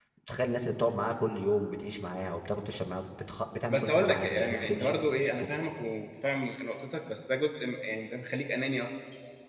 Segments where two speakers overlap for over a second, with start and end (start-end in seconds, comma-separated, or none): 3.7-5.0